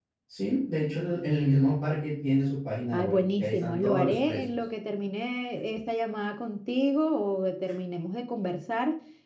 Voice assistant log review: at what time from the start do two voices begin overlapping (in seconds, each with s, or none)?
2.9 s